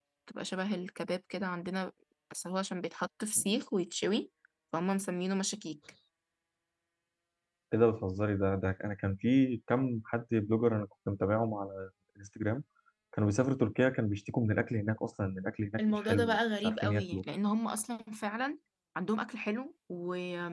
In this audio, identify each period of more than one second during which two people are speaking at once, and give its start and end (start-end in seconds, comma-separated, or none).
15.8-17.2